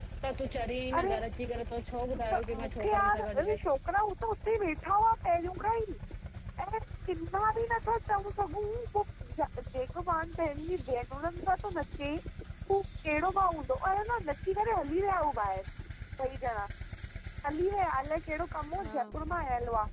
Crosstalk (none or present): present